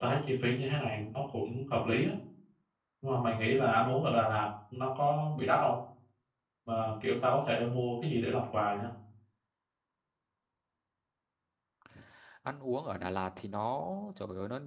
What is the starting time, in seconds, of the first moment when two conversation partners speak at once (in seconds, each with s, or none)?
none